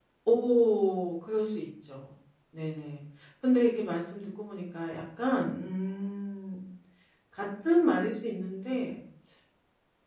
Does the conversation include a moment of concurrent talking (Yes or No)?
No